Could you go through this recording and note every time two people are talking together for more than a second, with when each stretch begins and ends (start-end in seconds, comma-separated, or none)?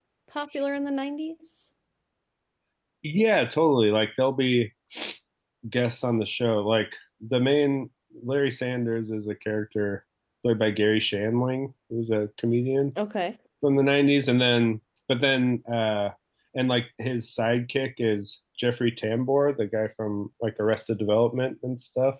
none